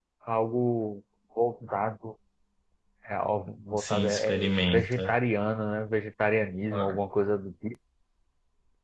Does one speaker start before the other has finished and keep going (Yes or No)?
Yes